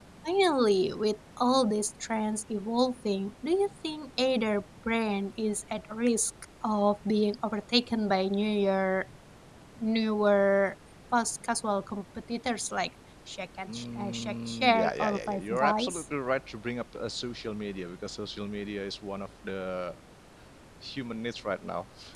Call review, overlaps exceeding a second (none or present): present